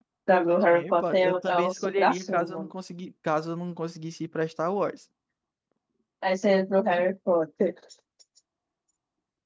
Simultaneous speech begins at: 0.7 s

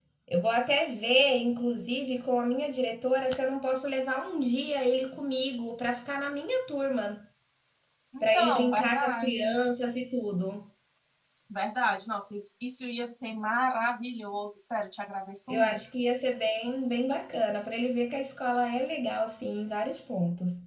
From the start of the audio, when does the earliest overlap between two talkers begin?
8.2 s

